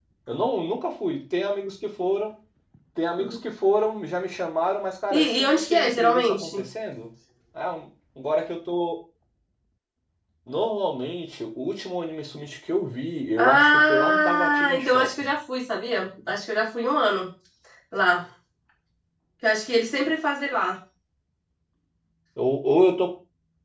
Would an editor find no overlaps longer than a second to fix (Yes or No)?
No